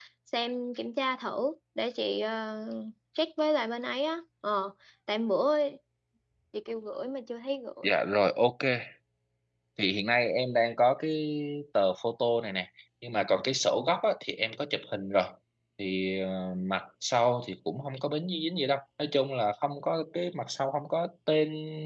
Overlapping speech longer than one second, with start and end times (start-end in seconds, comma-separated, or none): none